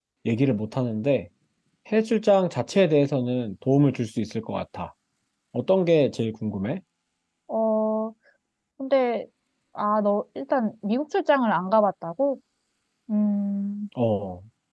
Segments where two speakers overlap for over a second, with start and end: none

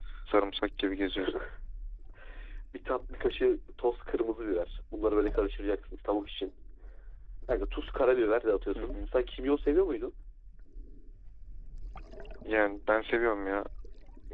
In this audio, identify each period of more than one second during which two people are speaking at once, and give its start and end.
none

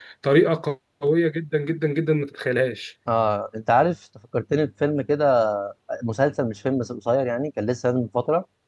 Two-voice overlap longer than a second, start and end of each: none

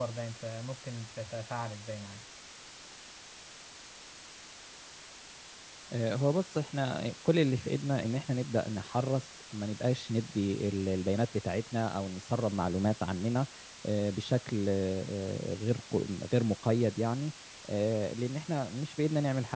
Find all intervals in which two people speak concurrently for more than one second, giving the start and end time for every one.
none

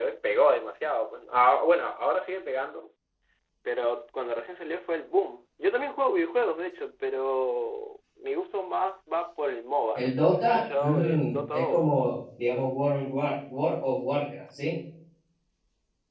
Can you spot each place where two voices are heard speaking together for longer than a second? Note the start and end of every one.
9.9-11.8

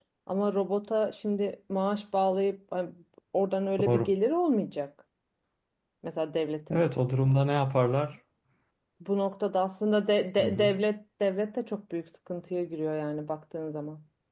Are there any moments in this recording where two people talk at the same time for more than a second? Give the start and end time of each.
none

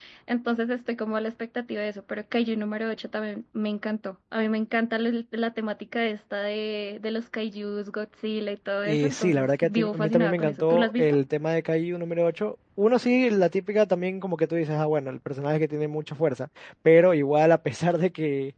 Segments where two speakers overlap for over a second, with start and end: 8.8-11.2

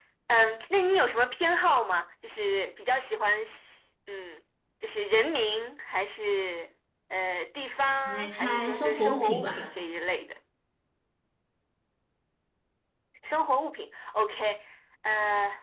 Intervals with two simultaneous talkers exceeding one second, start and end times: 8.1-9.6

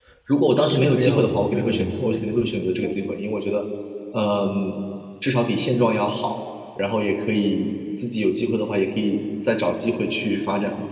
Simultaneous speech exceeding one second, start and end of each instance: 0.6-2.2

